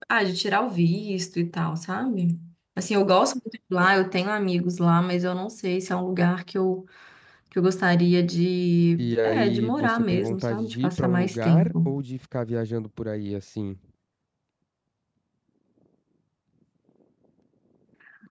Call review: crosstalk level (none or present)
present